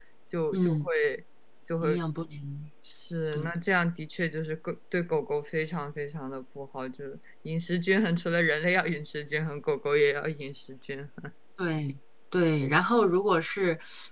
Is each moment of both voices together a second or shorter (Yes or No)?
Yes